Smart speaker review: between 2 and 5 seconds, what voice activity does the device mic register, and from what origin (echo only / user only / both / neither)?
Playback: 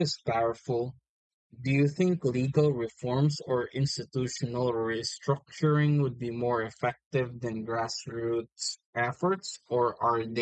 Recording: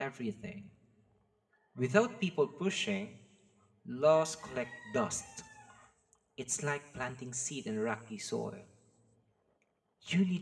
user only